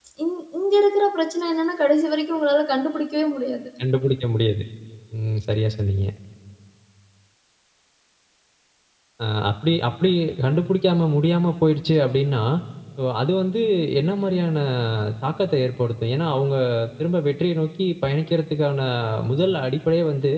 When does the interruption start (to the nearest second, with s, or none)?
none